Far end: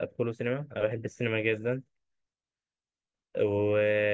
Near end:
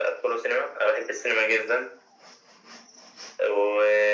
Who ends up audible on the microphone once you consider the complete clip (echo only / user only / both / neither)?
echo only